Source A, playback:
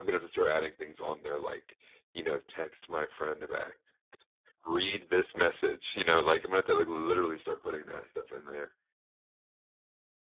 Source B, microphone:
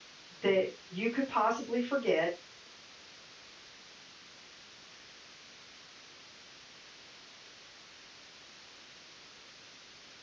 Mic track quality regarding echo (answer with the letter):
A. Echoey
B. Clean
B